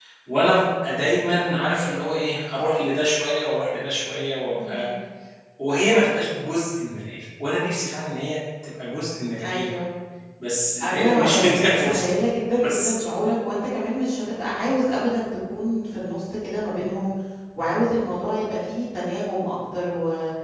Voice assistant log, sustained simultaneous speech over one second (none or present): present